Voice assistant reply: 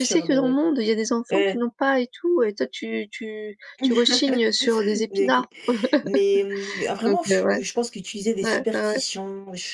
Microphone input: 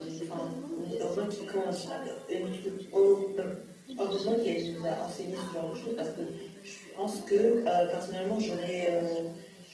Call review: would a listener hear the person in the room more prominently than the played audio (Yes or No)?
Yes